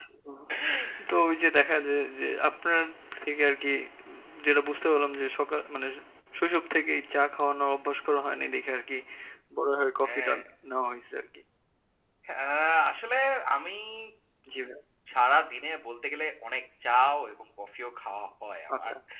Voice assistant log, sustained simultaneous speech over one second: none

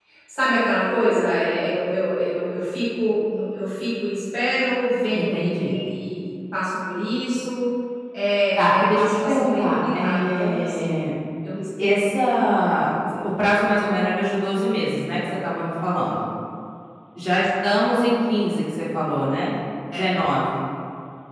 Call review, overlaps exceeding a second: present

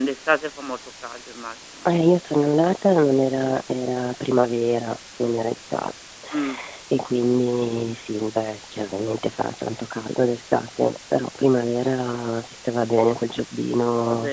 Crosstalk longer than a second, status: none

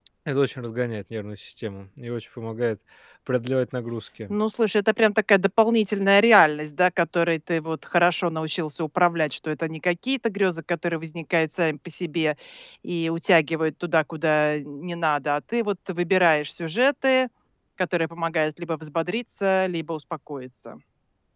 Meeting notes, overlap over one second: none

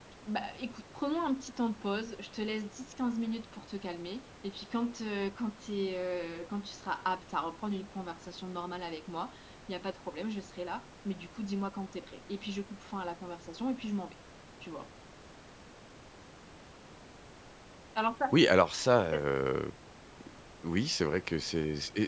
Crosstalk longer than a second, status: none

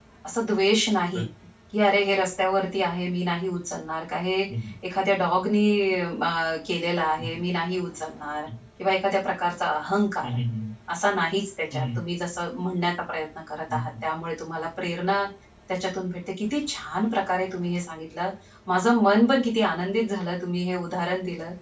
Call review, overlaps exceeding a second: none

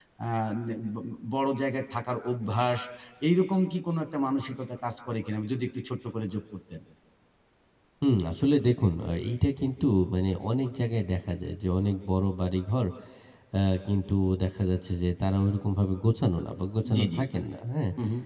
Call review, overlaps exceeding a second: none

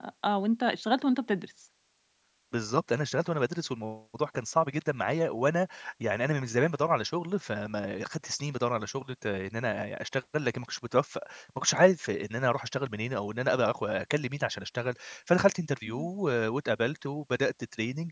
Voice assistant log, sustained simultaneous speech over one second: none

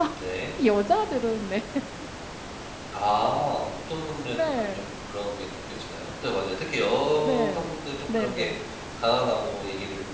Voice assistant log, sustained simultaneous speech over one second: none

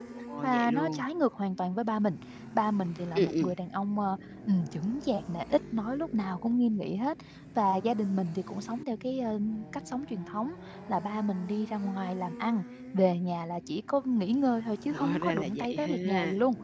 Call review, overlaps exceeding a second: present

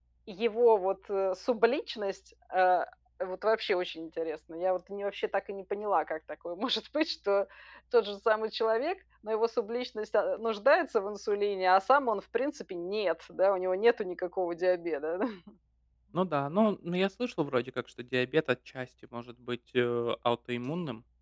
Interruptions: none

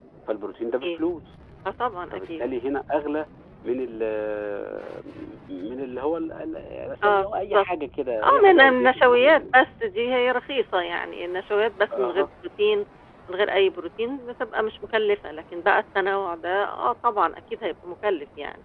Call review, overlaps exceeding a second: present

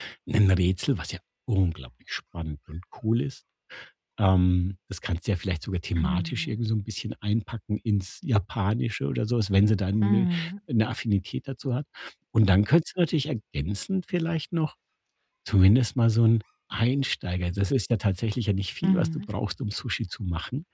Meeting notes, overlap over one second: none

